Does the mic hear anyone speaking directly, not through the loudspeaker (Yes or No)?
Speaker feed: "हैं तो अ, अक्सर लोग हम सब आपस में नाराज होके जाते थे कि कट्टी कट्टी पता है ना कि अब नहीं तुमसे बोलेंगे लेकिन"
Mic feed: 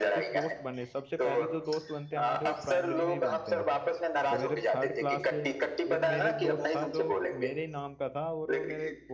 Yes